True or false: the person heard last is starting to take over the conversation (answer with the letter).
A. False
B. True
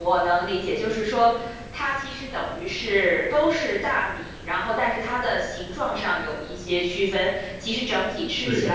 A